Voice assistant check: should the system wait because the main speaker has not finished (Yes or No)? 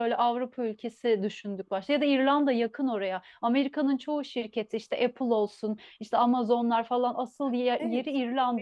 No